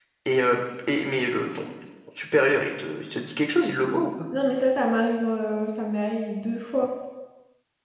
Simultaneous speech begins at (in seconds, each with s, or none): none